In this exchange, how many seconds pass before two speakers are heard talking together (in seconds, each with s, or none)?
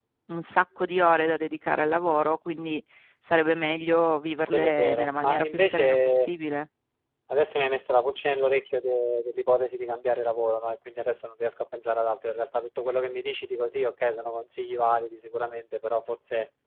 4.5 s